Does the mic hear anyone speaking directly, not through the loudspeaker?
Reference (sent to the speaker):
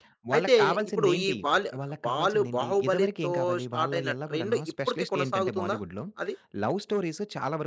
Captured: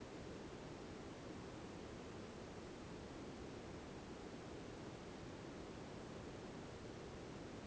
No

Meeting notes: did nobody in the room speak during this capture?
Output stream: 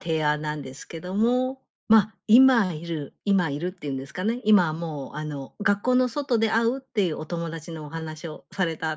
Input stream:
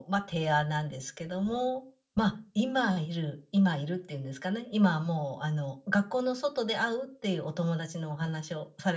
Yes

